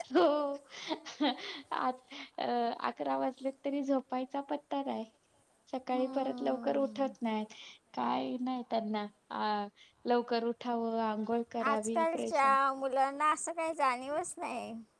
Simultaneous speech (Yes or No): Yes